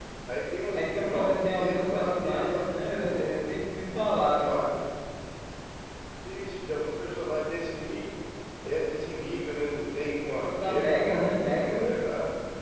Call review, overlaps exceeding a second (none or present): present